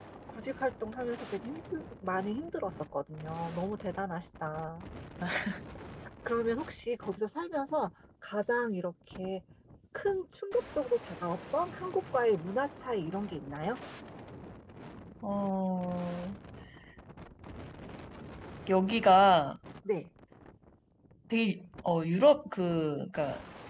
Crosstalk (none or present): none